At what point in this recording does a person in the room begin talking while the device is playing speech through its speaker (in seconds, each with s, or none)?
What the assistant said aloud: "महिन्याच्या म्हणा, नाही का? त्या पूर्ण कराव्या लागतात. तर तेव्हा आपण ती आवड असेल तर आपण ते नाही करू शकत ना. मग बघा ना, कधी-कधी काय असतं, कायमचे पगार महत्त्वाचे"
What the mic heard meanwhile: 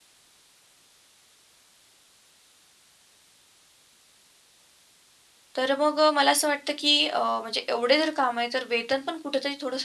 5.6 s